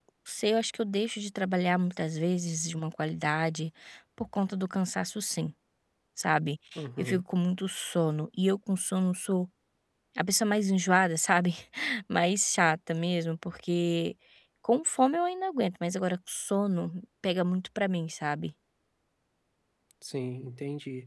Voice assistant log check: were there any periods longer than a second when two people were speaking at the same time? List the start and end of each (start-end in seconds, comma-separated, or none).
none